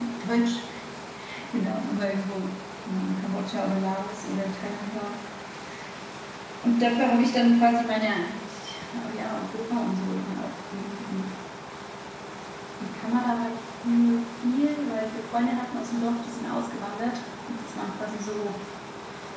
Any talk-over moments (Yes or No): No